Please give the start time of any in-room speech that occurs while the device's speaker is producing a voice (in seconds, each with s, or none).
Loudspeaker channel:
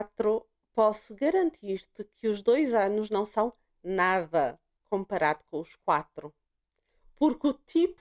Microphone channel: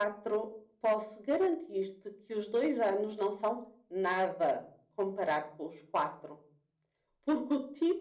none